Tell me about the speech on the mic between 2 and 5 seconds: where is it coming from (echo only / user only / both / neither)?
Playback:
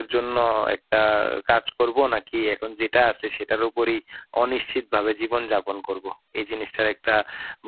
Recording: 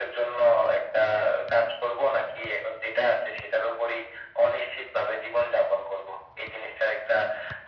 echo only